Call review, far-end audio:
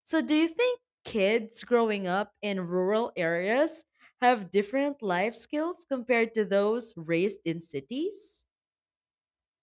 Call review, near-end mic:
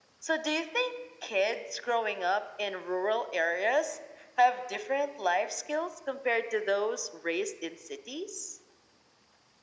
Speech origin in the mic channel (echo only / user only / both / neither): echo only